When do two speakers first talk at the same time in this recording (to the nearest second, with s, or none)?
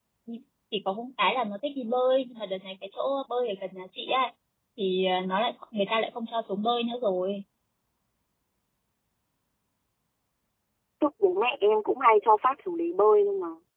none